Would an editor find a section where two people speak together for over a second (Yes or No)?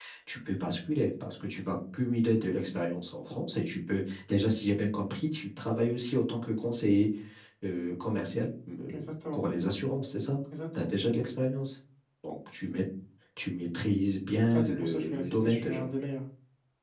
Yes